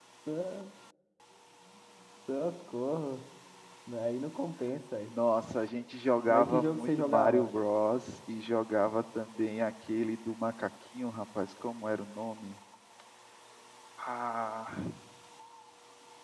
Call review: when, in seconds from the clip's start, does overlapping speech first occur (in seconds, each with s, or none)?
6.3 s